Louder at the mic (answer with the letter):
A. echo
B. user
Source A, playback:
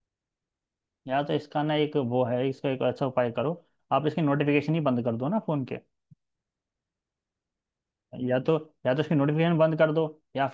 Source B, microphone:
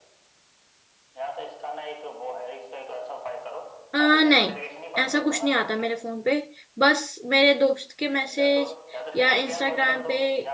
B